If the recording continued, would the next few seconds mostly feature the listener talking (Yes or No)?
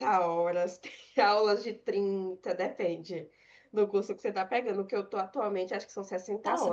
Yes